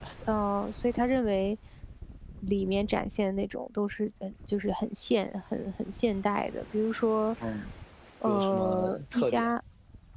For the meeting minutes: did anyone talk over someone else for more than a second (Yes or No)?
Yes